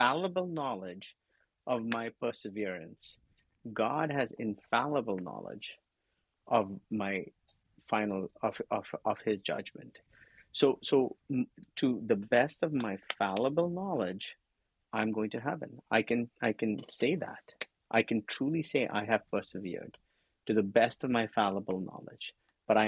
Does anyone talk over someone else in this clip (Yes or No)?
No